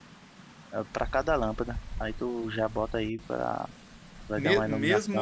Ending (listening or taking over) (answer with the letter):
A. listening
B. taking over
B